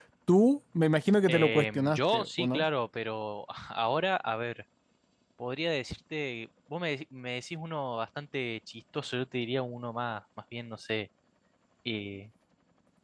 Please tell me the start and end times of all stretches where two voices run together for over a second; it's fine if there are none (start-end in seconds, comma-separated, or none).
1.3-2.6